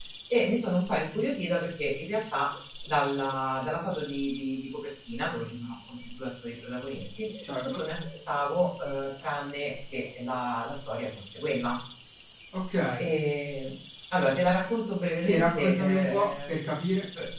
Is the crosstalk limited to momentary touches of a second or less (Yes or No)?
No